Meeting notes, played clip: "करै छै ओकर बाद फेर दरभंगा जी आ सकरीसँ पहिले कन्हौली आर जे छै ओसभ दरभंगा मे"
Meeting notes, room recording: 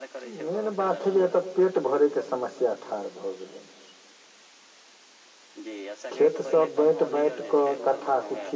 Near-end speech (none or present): present